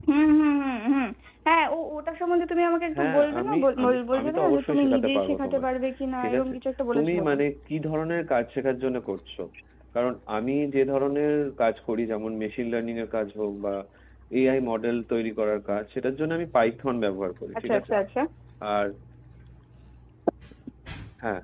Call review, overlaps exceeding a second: present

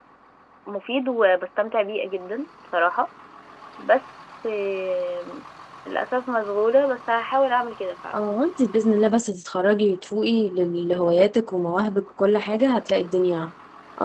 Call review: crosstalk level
none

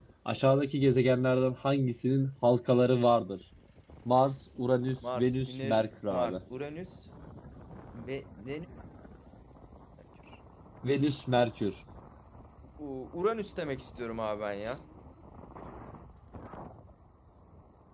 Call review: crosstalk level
present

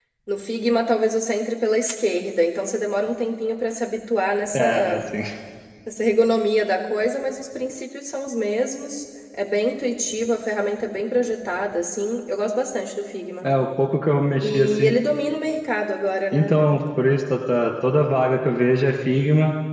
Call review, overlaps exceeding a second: none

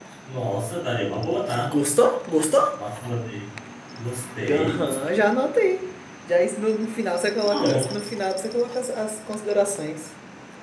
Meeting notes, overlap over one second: none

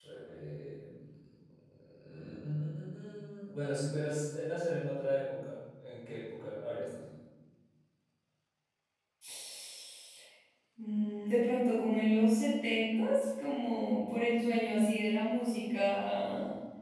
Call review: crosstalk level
none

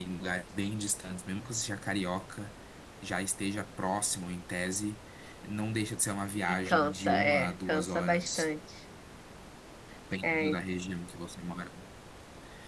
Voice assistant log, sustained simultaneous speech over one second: present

